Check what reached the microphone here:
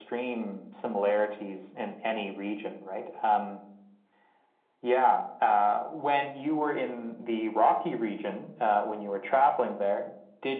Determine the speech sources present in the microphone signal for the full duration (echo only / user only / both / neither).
echo only